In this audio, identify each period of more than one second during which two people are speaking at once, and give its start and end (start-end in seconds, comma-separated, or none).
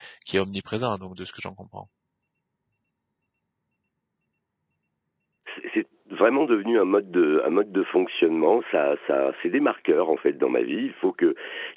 none